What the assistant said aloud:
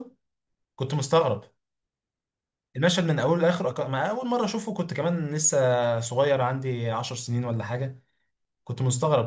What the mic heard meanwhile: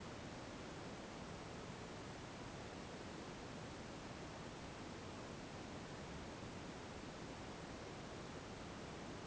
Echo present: No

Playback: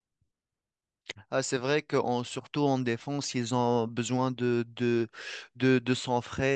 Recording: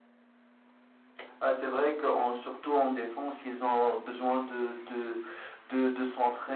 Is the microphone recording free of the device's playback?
No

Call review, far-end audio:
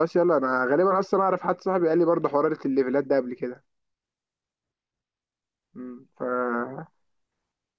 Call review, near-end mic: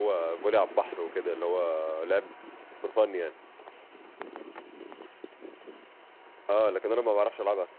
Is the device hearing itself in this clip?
No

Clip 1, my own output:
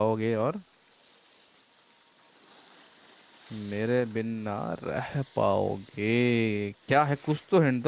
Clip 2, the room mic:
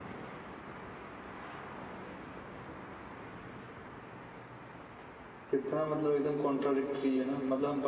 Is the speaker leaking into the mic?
No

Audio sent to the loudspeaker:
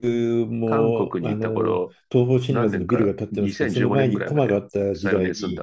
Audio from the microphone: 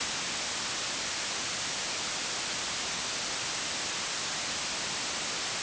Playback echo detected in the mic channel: No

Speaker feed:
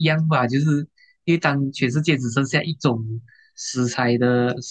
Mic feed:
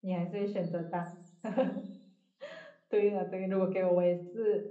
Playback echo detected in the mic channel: No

